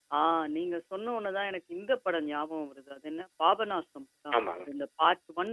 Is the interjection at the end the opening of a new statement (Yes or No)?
No